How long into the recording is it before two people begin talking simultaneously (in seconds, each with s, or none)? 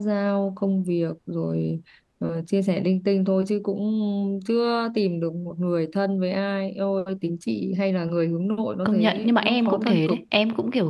8.8 s